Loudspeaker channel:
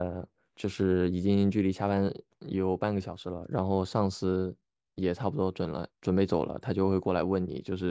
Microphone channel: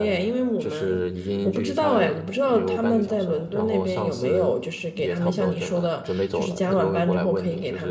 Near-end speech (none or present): present